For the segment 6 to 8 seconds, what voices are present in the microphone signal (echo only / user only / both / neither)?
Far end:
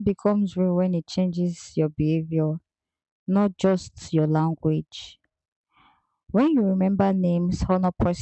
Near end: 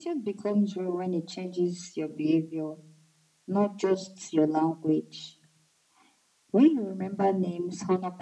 echo only